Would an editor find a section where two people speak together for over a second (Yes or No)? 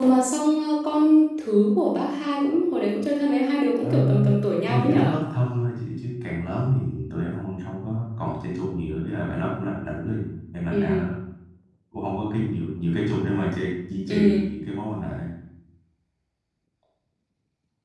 No